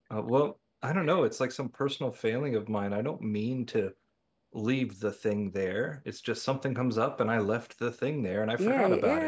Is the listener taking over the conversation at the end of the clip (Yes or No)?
Yes